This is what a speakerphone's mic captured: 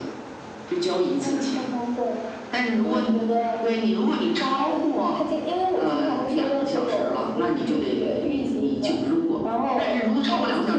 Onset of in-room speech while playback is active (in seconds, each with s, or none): none